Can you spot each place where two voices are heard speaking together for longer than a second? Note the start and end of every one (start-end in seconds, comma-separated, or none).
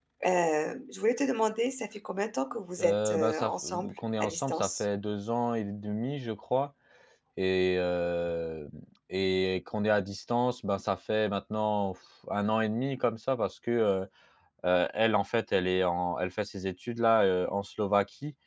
2.8-4.8